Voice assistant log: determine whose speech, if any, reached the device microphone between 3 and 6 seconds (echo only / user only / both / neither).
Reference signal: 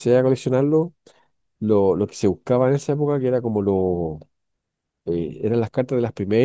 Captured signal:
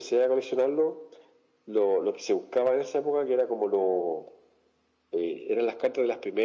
echo only